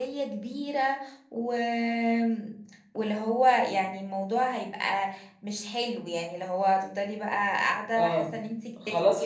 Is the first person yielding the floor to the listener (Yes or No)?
Yes